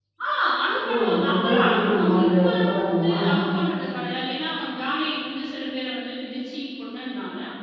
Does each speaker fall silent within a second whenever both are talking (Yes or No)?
No